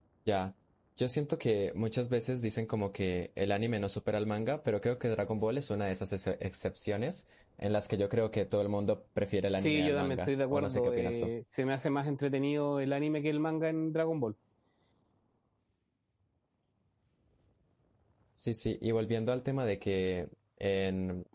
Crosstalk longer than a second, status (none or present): present